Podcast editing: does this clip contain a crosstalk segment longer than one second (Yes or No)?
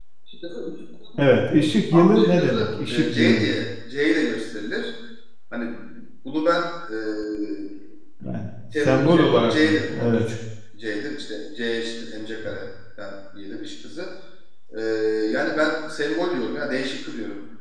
Yes